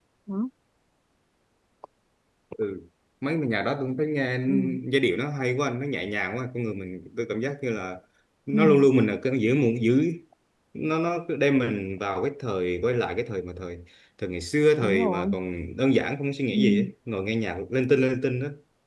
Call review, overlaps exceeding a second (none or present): none